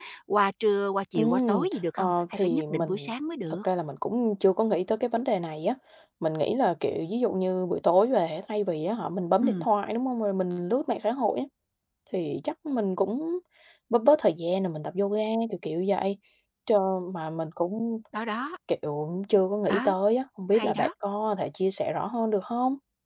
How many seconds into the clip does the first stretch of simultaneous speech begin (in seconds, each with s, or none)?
1.1 s